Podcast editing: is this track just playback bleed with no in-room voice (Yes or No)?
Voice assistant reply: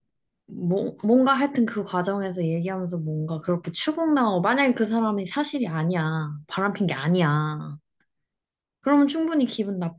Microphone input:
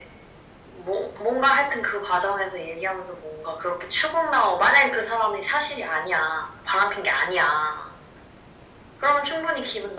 Yes